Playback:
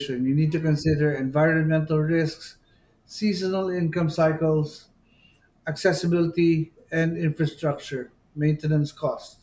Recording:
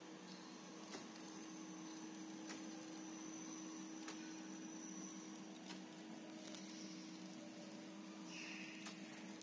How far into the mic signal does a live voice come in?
none

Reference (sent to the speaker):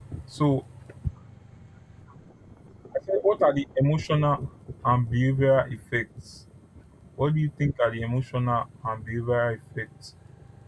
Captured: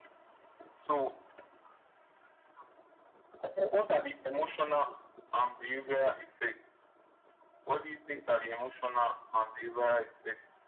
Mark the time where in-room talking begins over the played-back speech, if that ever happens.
none

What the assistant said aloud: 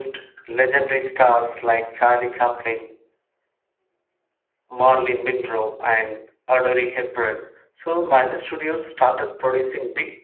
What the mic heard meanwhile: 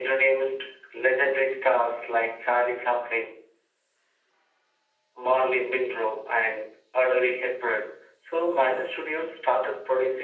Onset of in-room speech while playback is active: none

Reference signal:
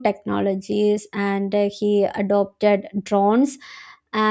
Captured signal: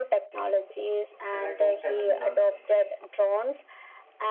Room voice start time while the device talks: 1.3 s

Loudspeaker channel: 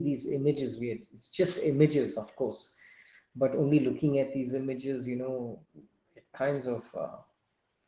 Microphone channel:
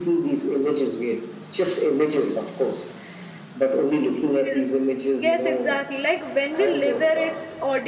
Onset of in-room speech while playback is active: 4.1 s

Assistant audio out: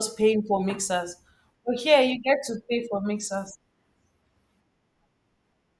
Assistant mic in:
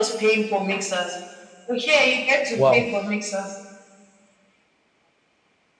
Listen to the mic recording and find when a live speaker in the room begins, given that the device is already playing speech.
2.5 s

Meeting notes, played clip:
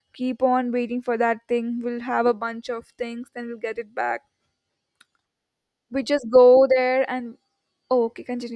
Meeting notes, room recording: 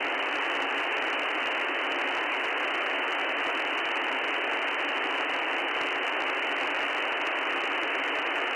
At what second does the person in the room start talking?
none

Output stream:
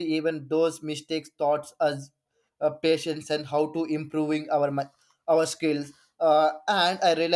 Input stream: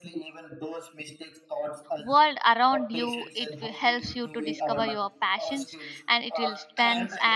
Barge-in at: 2.0 s

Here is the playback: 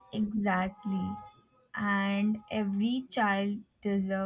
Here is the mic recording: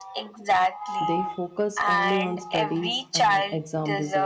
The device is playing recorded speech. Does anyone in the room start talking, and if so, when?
1.0 s

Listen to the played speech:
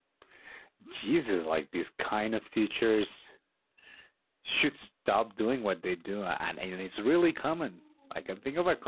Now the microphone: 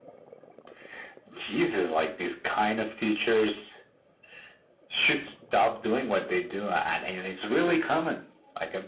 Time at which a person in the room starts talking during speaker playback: none

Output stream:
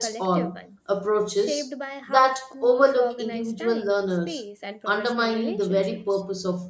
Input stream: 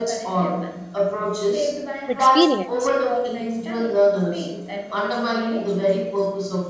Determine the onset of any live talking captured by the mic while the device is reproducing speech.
2.1 s

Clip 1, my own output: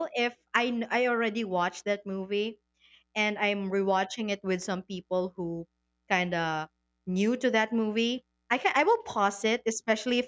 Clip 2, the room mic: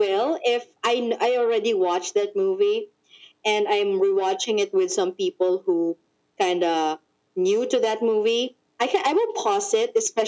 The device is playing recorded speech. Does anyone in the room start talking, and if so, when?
none

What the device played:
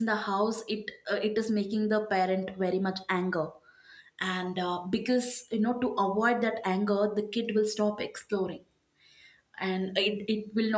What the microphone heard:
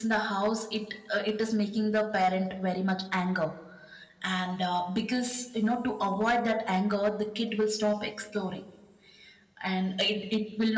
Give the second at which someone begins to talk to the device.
none

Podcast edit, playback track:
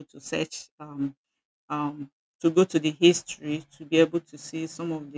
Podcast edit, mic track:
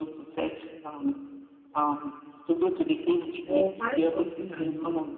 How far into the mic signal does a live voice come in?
3.1 s

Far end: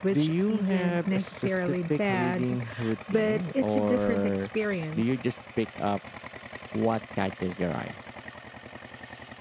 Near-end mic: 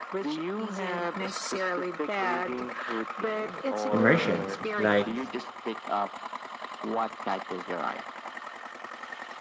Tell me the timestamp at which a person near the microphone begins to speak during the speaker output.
3.9 s

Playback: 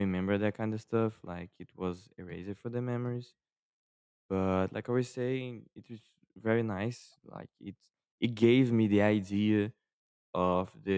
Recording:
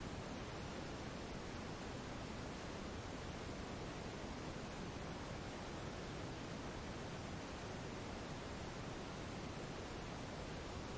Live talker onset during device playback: none

